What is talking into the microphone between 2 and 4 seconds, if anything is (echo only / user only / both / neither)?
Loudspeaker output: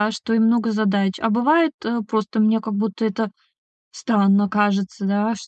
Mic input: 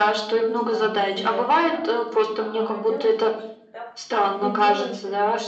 both